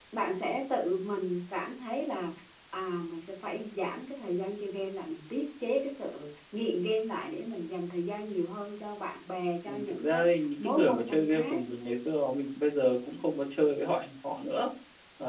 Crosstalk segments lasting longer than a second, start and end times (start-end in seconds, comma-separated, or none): 9.8-11.6